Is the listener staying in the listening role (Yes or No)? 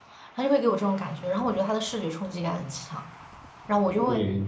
Yes